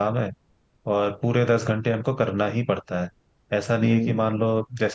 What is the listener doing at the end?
listening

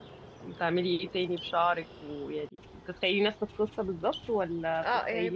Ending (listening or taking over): taking over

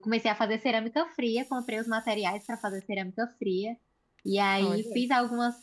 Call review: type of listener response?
listening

